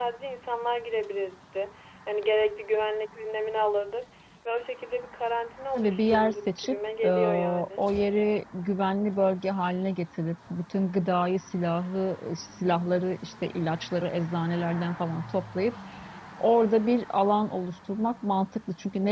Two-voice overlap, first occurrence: 6 s

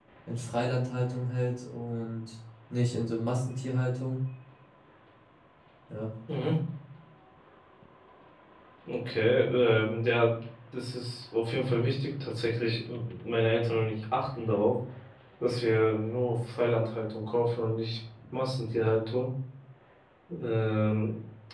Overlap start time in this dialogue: none

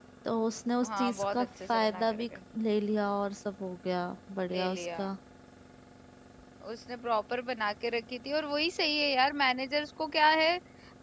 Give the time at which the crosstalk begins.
1 s

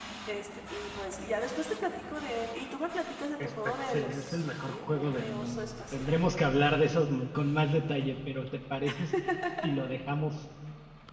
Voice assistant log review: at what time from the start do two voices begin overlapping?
3 s

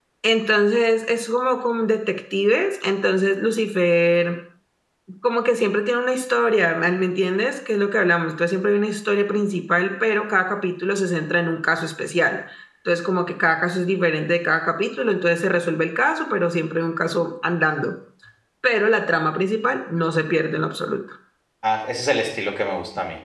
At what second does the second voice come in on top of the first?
none

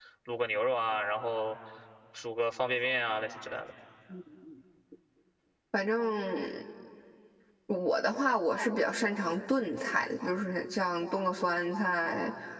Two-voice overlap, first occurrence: none

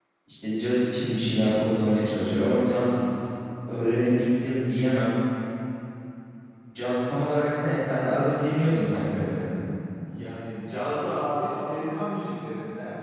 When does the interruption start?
none

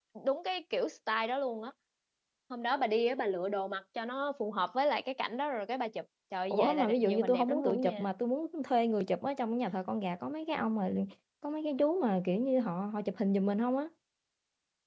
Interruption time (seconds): 7 s

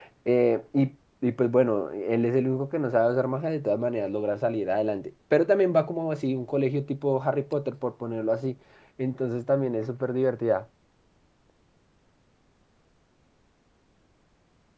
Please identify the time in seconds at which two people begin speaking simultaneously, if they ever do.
none

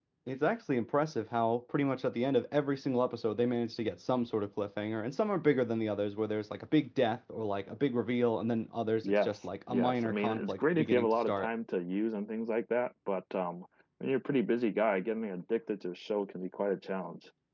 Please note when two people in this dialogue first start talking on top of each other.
9 s

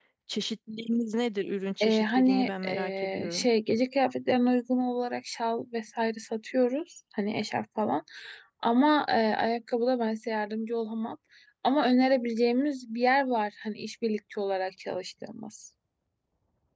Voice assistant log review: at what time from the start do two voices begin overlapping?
2 s

